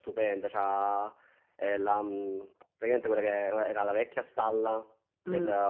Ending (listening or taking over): listening